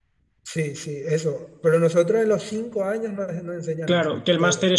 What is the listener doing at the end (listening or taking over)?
taking over